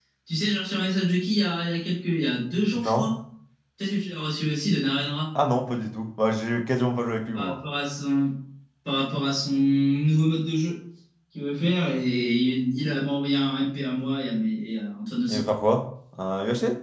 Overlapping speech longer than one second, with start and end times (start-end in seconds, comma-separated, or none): none